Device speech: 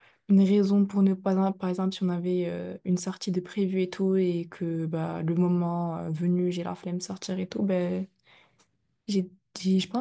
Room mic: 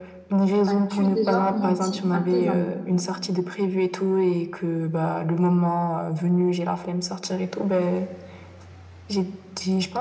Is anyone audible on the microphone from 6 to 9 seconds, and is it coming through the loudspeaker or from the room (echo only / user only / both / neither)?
echo only